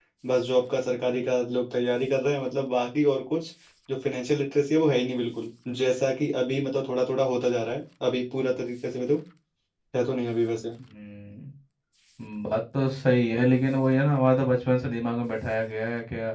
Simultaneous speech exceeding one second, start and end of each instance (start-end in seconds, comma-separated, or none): none